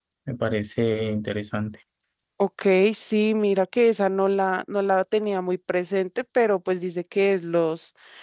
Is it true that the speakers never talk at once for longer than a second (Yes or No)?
Yes